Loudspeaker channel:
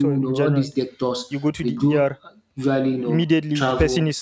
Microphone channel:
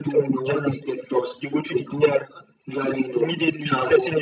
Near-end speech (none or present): none